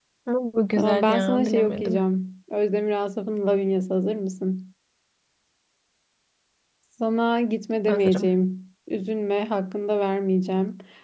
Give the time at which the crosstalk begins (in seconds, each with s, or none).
0.7 s